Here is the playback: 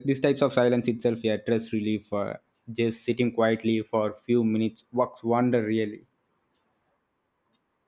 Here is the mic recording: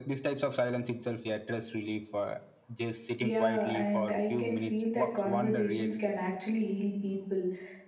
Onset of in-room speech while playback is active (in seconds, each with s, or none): 3.2 s